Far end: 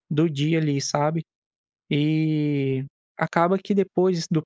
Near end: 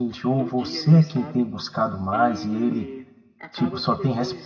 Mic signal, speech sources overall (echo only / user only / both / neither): both